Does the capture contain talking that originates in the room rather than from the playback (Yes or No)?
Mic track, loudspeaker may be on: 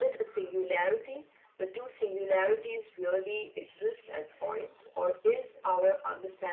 No